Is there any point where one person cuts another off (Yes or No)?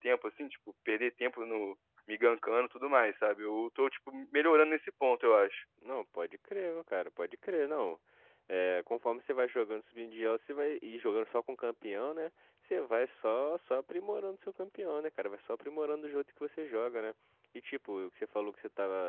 No